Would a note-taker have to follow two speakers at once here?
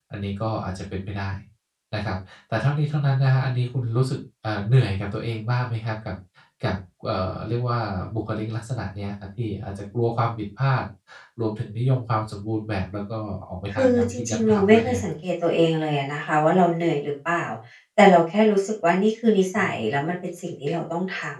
Yes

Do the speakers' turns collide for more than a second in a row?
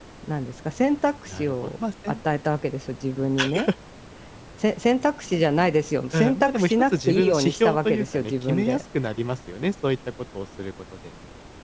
Yes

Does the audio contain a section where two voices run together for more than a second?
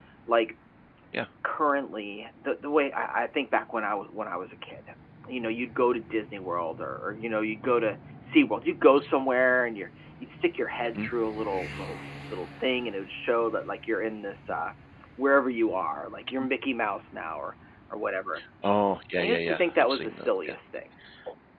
Yes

